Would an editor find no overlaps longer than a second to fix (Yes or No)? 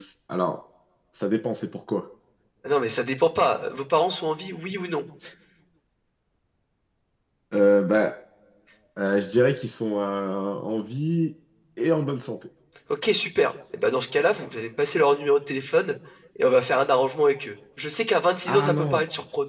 Yes